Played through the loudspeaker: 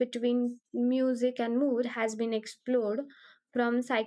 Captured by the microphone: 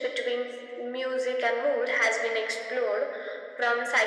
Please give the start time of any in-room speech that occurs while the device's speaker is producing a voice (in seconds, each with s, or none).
none